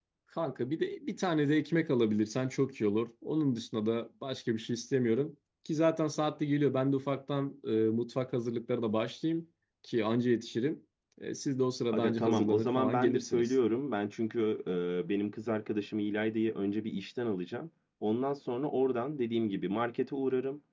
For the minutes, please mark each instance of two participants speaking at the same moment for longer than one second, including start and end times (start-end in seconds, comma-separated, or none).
11.9-13.5